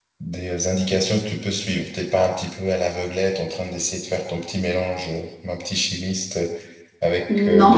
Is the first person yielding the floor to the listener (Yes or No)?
No